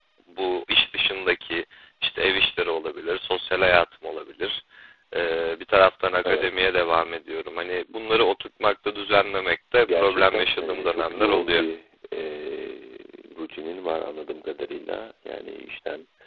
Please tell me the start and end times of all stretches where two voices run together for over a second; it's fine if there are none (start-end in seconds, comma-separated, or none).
9.9-11.6